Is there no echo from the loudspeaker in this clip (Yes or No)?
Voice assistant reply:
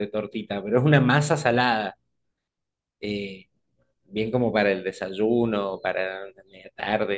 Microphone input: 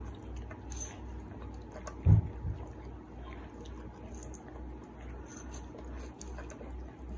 Yes